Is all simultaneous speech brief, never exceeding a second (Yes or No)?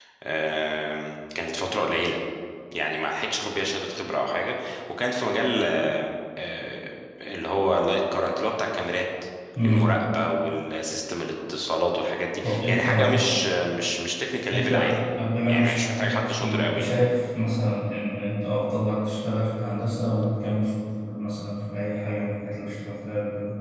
No